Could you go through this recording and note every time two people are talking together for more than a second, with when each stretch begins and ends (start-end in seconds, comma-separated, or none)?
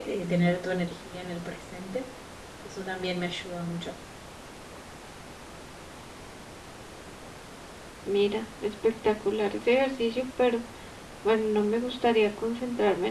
none